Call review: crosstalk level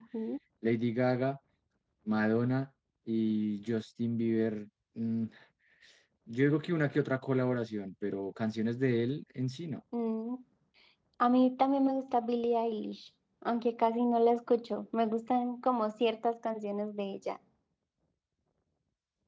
none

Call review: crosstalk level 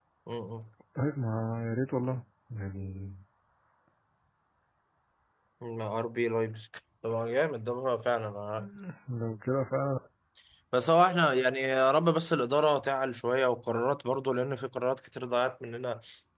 none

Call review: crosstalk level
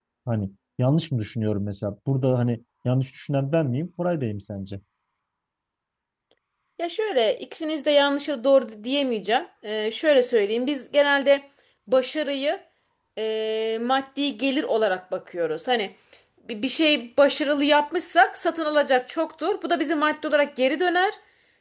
none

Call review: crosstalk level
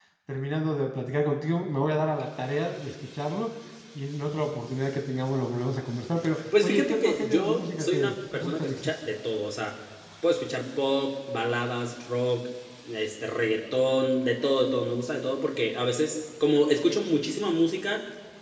present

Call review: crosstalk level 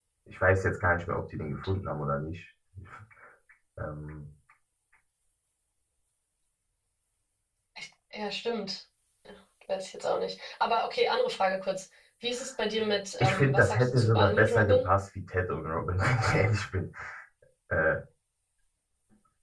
present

